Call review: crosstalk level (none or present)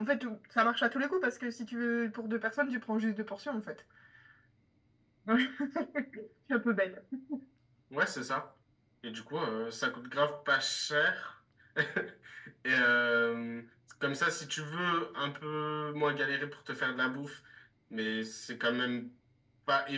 none